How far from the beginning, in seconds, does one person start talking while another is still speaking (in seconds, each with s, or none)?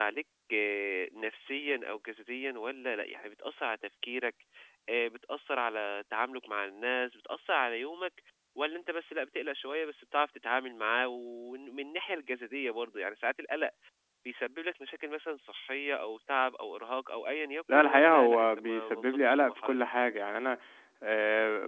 17.7 s